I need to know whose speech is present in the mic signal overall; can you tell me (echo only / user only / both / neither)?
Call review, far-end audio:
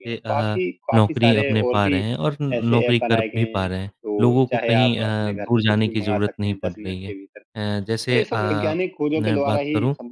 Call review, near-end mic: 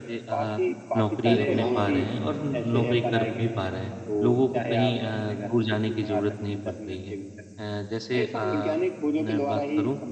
both